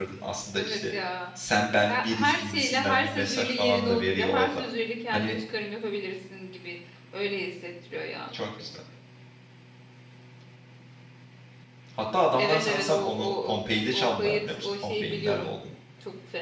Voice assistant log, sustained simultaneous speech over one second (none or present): present